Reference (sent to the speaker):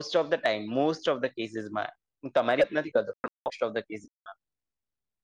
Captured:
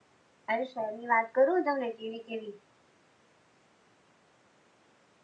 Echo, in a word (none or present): none